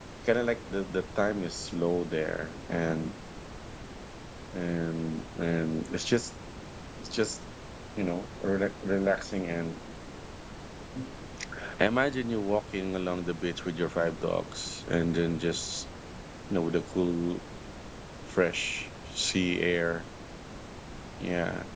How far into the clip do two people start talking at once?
none

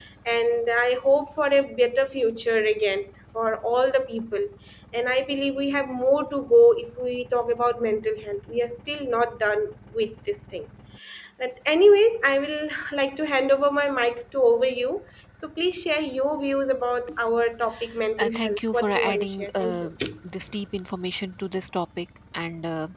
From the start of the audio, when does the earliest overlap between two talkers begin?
18 s

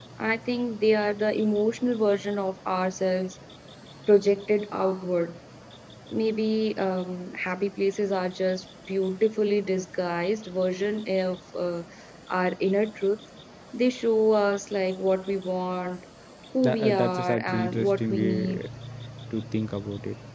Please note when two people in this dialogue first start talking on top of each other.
17 s

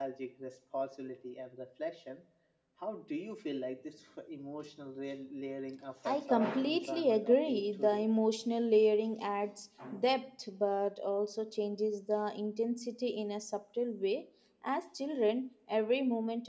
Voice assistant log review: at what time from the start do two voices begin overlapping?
6 s

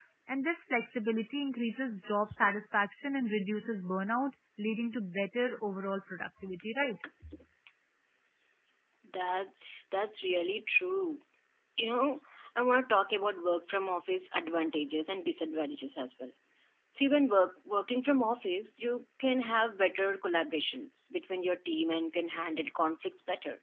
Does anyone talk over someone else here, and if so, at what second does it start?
none

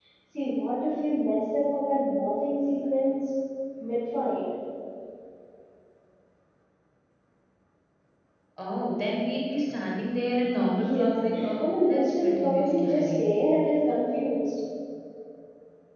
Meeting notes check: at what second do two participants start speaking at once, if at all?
11 s

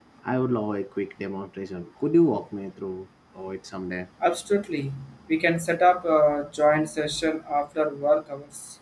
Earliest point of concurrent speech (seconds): none

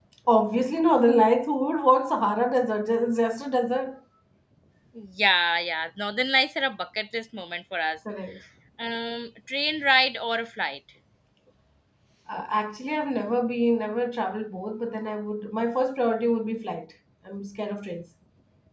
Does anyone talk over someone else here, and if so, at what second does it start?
none

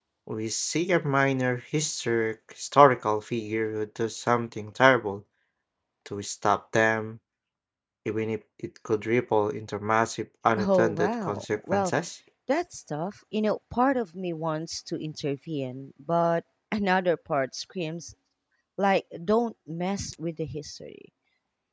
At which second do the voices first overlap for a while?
11 s

